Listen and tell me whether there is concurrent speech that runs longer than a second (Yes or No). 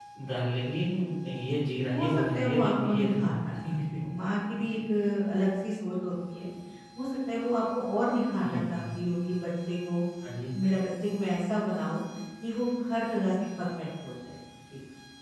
Yes